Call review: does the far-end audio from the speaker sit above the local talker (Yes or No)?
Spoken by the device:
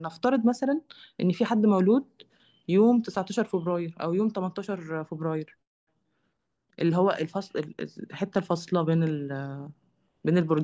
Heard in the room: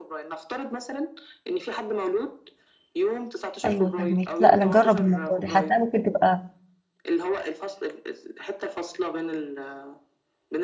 No